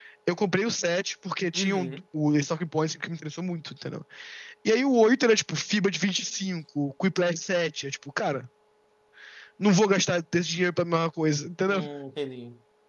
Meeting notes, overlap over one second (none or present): none